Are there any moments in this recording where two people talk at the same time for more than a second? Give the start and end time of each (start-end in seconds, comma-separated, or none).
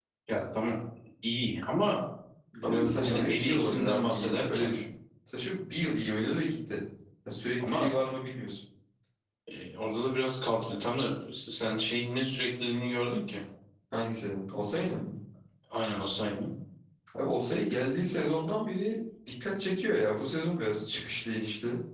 2.6-4.7